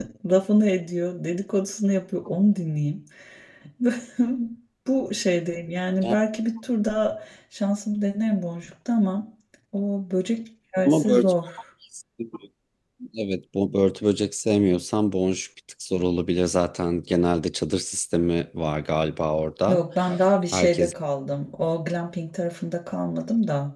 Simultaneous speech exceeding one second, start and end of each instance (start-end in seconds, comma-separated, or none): none